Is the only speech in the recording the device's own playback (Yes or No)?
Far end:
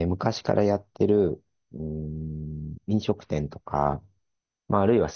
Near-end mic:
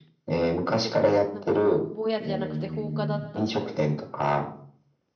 No